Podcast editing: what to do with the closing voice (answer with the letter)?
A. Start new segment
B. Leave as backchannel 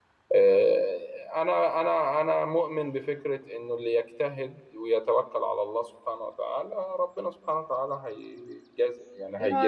A